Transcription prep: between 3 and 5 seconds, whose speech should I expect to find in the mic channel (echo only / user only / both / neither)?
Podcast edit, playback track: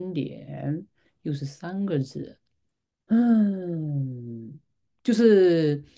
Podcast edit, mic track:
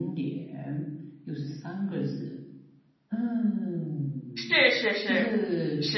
both